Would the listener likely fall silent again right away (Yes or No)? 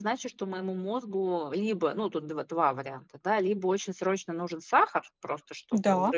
Yes